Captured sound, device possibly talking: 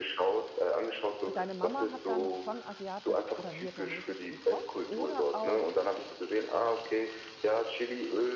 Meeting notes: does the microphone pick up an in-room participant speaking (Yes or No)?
Yes